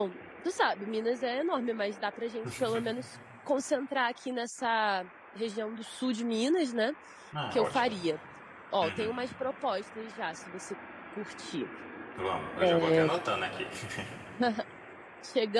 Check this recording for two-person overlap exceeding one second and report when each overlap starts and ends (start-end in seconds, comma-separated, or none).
none